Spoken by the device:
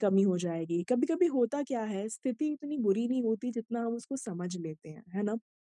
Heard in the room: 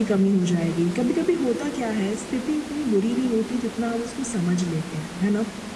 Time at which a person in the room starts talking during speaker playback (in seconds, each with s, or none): none